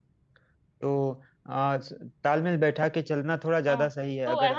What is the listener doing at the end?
taking over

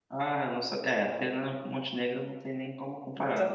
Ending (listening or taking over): taking over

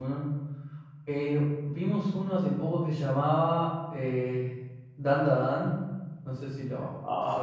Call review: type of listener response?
taking over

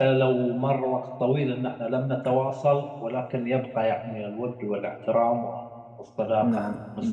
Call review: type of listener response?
taking over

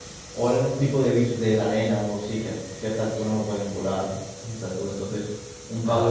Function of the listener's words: listening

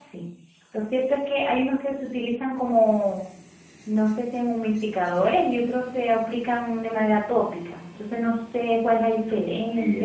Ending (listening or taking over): taking over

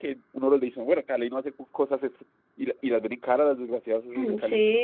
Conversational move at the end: taking over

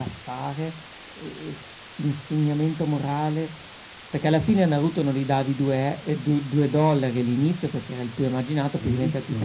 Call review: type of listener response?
taking over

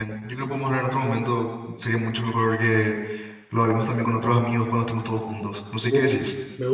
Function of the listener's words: taking over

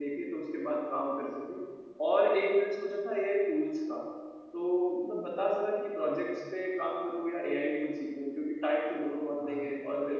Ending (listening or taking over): listening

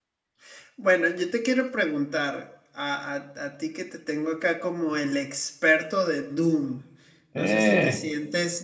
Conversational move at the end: listening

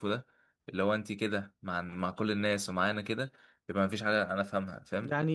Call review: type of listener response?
taking over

